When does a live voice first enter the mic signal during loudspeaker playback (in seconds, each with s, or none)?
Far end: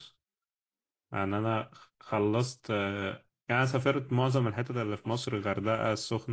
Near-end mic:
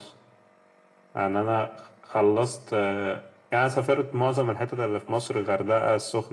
none